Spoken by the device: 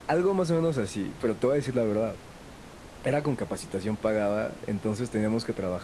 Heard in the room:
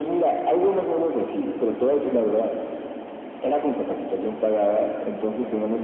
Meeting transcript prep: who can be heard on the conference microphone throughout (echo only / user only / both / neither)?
echo only